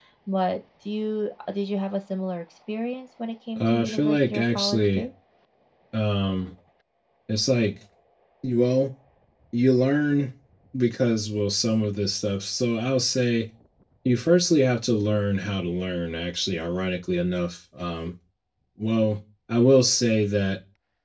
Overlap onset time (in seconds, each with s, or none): 3.6 s